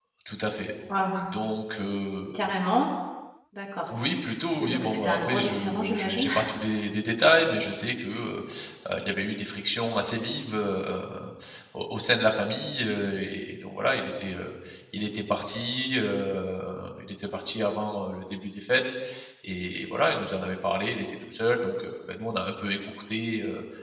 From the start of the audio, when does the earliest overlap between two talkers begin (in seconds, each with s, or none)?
4.6 s